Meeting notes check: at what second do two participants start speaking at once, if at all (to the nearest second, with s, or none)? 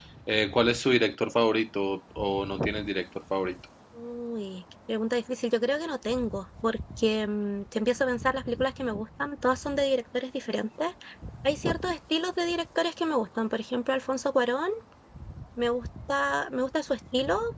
none